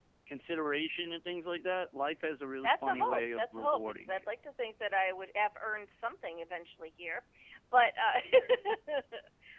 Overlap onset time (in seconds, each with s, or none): 2.6 s